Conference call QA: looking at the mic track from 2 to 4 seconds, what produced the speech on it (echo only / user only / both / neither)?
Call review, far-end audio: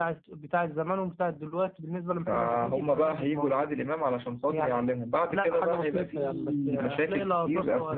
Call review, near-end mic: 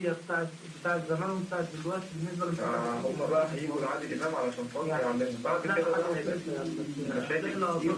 echo only